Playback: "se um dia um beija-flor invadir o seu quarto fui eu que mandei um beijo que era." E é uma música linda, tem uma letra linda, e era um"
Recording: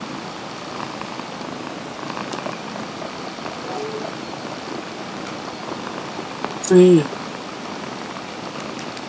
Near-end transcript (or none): Sim.